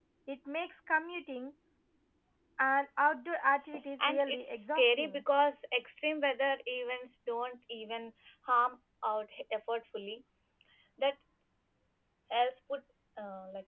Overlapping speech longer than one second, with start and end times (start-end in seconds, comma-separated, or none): 4.0-5.2